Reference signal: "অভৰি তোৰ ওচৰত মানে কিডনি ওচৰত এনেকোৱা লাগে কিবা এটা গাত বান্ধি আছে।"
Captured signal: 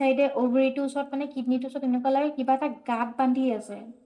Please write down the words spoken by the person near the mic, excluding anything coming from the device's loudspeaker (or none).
none